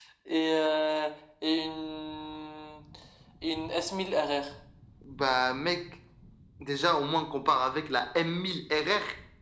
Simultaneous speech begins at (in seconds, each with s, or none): none